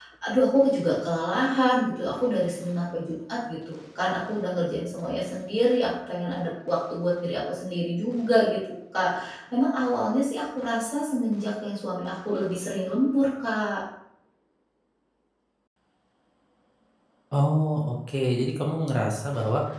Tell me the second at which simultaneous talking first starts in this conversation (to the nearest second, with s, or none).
none